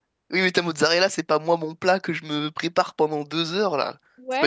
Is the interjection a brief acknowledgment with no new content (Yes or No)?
No